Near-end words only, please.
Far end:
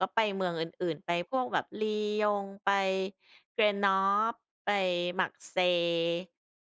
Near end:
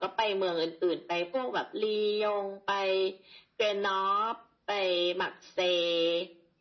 none

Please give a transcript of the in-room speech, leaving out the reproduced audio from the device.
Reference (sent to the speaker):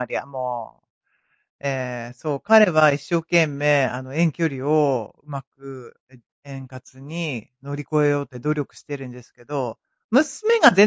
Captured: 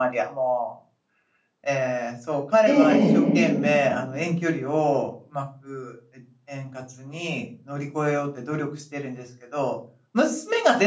ええ、ええ。

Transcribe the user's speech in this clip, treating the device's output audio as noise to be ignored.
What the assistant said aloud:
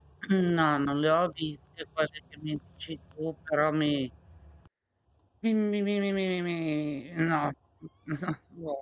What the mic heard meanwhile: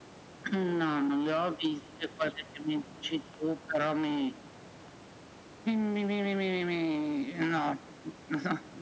none

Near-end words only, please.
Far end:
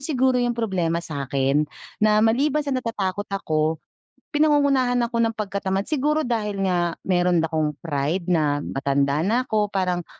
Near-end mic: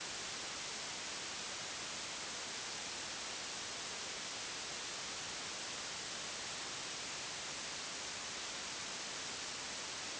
none

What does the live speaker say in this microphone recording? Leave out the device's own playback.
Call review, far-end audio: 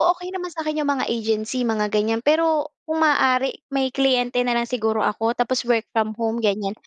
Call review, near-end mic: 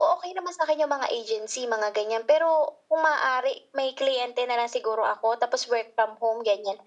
none

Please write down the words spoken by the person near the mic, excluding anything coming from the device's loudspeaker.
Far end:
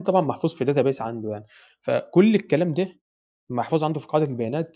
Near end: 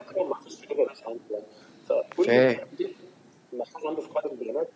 فاه

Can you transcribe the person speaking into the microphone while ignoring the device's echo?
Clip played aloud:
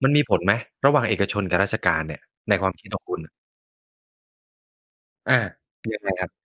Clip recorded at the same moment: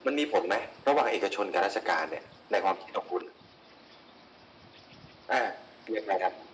none

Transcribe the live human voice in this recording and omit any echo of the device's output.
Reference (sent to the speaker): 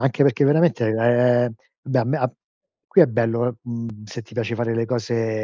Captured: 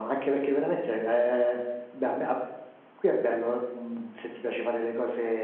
none

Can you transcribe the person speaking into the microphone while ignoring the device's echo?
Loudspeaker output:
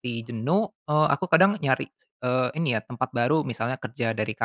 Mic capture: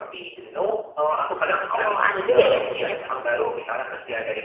Heeh. Oh ada juga ya ternyata

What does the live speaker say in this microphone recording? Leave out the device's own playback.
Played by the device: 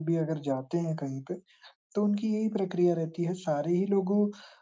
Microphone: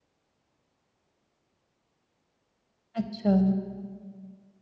अच्छा।

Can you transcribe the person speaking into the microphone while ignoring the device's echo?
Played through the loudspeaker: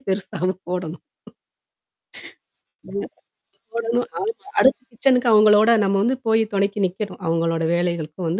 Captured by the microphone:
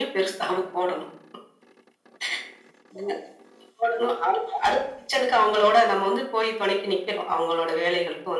none

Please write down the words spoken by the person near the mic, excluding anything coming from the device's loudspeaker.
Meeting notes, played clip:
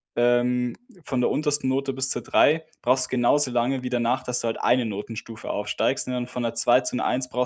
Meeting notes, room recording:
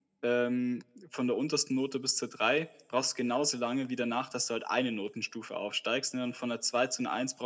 none

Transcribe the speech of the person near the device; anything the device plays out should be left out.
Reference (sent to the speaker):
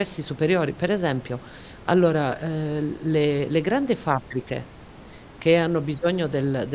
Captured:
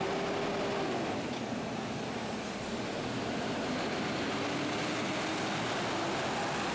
none

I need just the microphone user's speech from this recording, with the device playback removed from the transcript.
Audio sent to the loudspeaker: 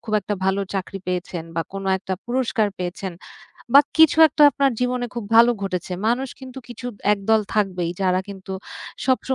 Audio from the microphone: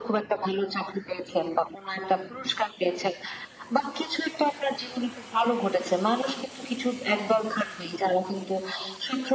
none

